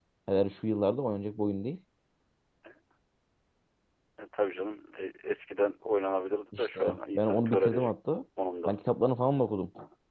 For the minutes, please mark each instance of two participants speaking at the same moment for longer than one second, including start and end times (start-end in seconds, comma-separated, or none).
6.6-7.9